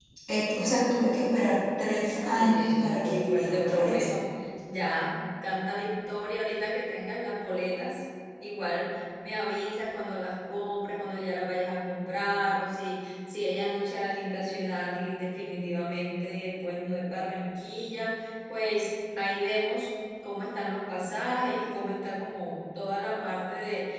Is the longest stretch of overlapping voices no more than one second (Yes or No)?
No